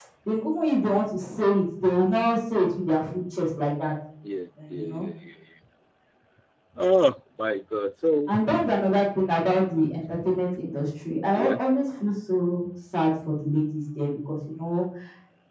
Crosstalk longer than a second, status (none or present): none